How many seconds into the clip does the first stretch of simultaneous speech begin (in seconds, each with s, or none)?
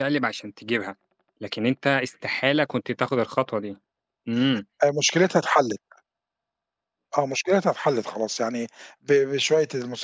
none